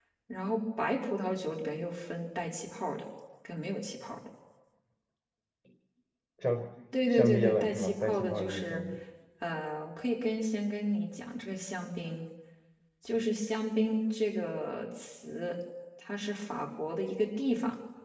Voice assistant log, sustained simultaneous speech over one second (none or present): present